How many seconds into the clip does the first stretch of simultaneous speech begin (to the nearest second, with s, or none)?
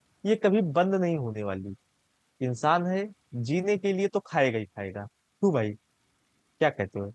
none